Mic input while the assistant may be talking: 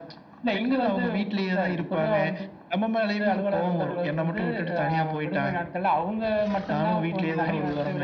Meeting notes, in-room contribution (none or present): none